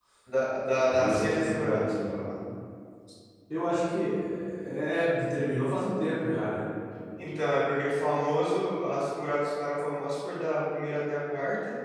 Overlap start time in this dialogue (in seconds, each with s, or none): 0.9 s